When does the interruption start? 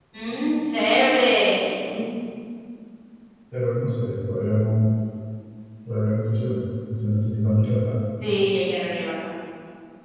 none

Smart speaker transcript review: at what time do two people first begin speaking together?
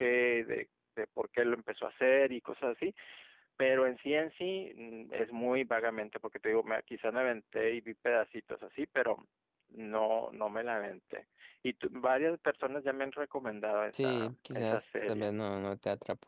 14 s

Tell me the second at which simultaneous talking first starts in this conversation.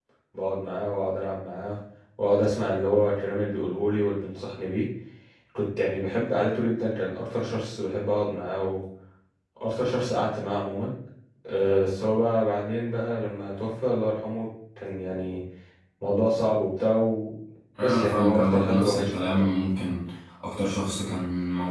18 s

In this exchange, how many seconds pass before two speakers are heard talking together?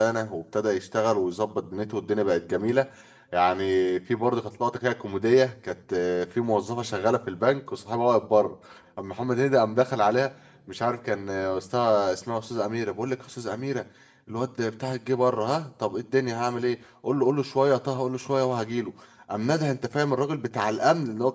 none

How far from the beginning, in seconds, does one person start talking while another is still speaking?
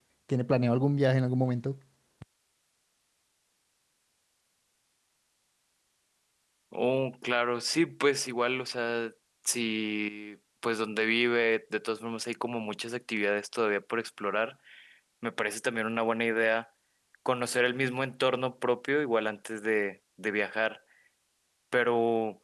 none

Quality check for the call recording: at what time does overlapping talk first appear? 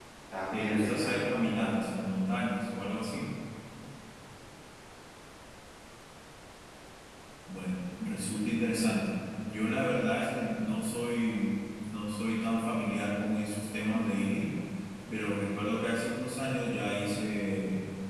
1 s

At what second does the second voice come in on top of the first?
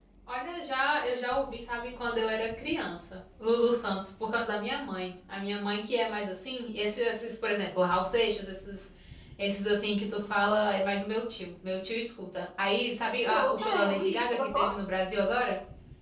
13 s

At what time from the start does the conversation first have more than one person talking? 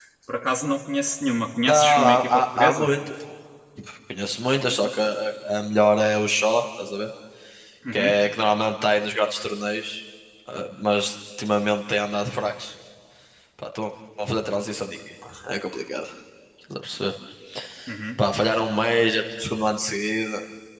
2 s

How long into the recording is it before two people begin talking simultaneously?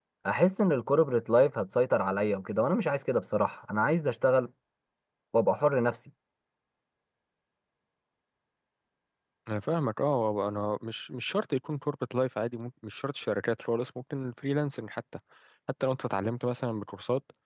none

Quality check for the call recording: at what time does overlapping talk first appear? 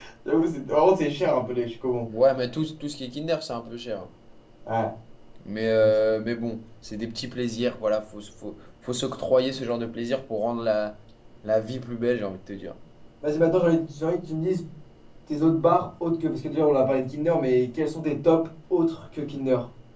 none

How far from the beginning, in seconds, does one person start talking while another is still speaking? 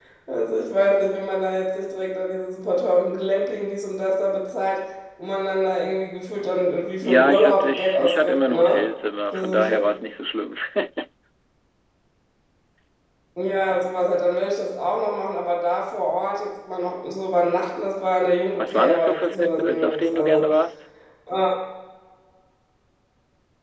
7 s

